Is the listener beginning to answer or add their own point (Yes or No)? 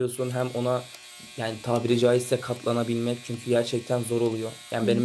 No